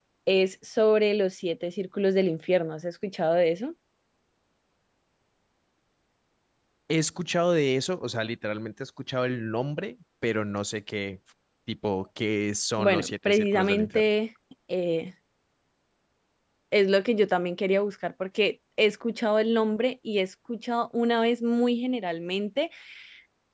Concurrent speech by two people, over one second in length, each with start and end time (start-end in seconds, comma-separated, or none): 12.8-14.1